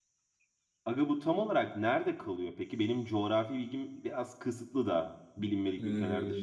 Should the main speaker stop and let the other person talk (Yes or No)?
Yes